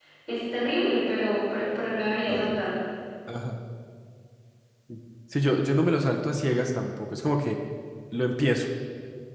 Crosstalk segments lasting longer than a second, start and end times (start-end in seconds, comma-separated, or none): none